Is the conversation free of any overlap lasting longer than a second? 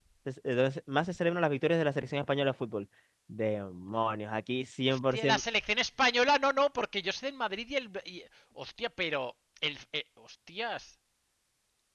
Yes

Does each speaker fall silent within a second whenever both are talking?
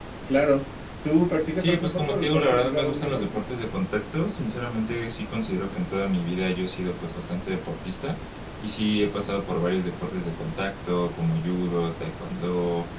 No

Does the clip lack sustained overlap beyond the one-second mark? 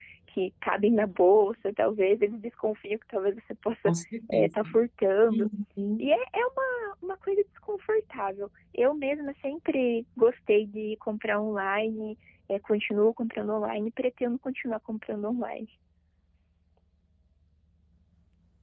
Yes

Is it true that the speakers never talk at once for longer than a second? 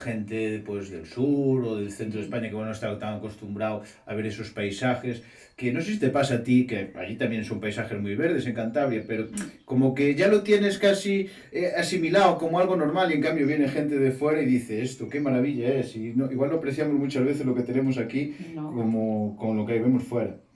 Yes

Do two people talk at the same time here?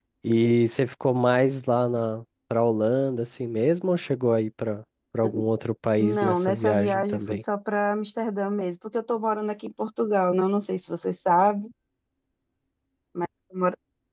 Yes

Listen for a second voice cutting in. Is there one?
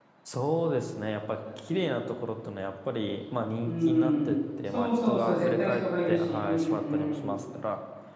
Yes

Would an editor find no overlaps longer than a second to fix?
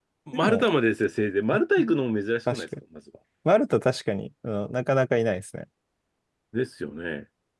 Yes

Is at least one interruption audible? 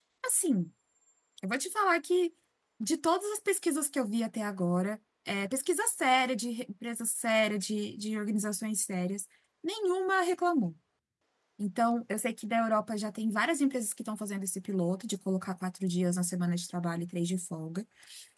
No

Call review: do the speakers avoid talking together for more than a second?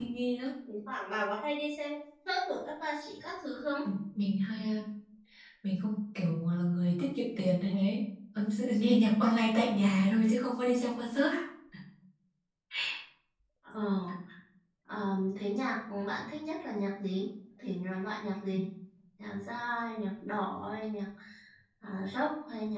Yes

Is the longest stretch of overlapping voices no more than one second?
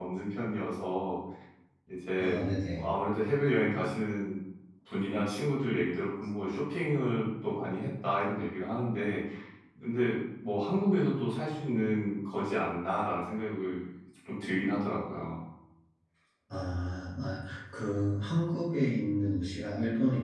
Yes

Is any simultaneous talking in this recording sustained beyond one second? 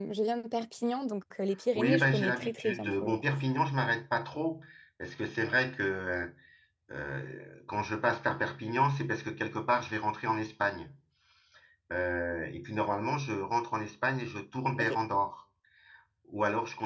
Yes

